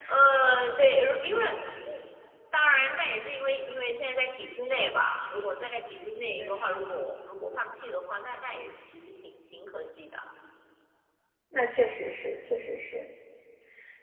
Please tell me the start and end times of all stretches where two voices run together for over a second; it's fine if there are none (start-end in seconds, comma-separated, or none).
none